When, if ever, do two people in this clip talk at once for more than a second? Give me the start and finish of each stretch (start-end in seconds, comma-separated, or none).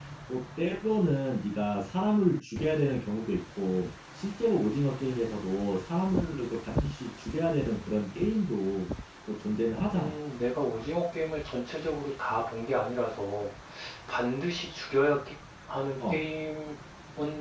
none